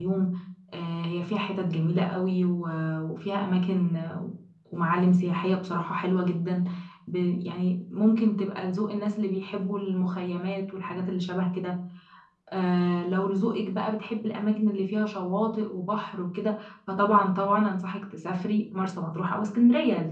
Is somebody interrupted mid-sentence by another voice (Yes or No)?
No